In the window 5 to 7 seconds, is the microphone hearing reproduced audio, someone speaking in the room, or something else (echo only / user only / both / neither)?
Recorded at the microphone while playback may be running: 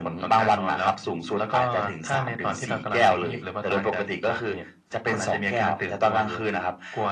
echo only